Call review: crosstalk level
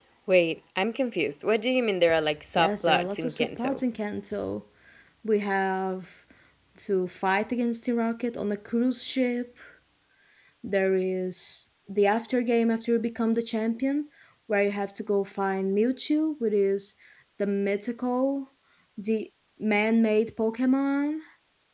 present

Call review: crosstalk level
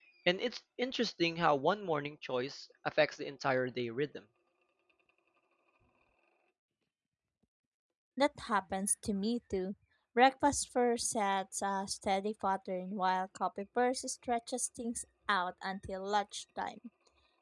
none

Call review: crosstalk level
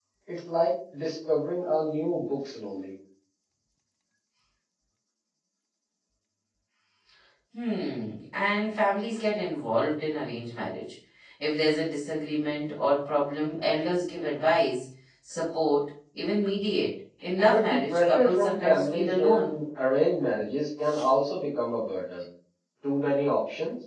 present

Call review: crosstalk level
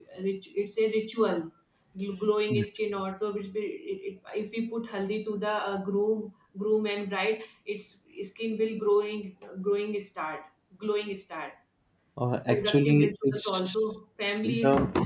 present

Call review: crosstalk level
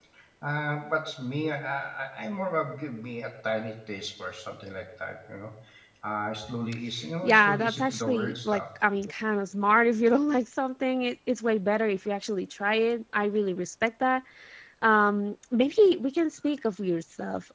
present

